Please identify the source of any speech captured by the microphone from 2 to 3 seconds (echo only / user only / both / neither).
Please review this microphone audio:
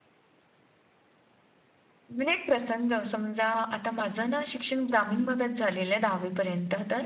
user only